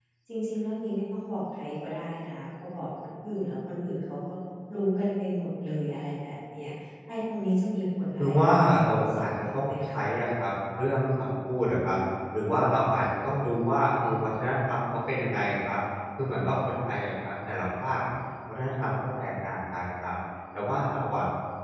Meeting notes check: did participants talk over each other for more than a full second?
Yes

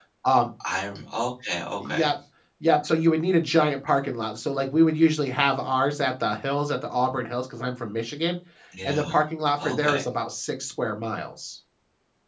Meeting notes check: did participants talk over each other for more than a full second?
No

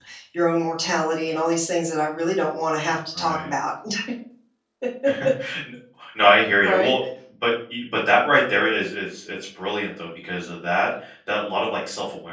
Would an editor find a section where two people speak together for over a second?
No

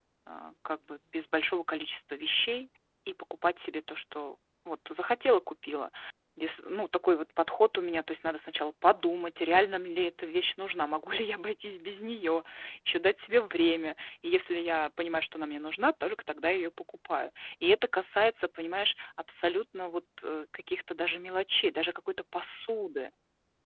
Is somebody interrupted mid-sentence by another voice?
No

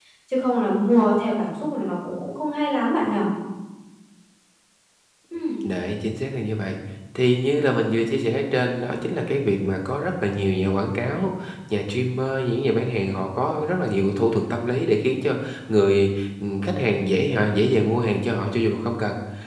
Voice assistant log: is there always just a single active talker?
Yes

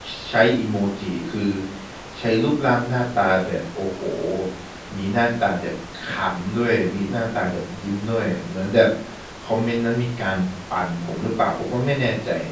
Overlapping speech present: No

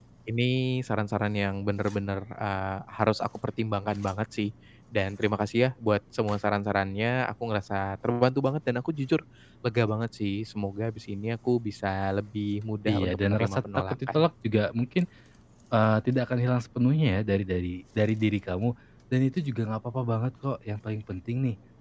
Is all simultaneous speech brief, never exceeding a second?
No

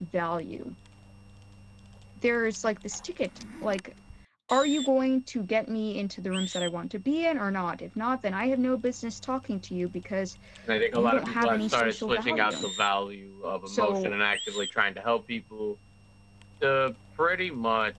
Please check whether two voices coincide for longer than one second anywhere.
Yes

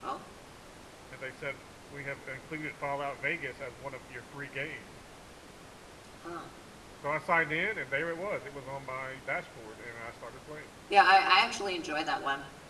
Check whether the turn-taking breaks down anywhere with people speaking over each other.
No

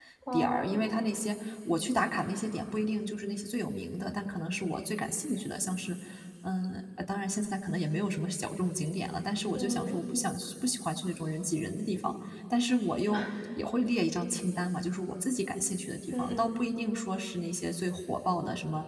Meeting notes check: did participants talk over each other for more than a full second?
No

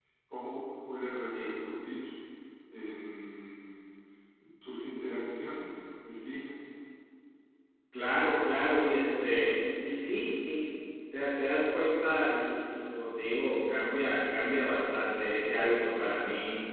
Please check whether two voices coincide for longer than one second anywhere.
No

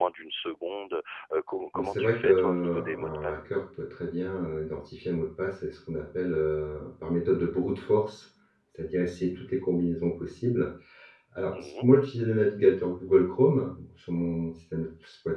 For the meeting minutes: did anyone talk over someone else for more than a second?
Yes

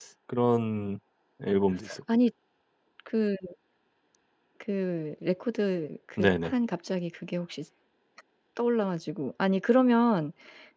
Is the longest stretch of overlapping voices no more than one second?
Yes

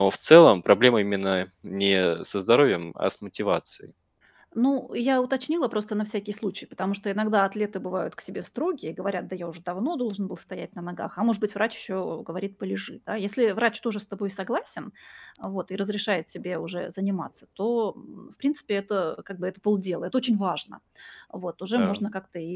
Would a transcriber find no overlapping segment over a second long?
Yes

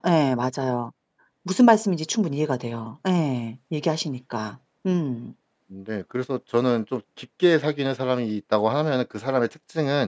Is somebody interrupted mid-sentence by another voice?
No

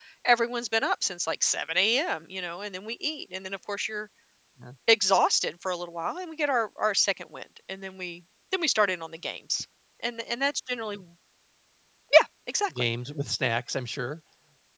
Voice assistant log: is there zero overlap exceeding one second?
Yes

